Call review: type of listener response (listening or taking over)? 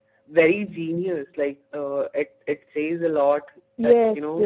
taking over